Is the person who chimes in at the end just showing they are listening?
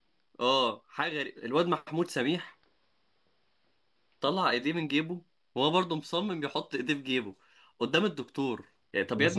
No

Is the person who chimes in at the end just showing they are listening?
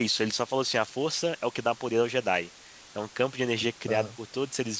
Yes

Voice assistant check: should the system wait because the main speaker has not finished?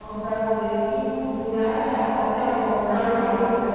Yes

